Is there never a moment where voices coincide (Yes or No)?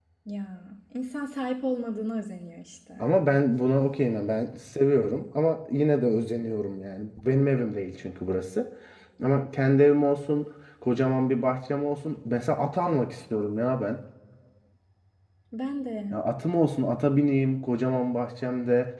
Yes